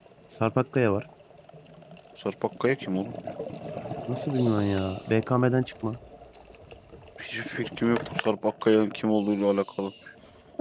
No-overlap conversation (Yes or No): Yes